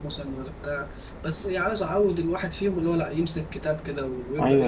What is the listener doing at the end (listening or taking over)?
taking over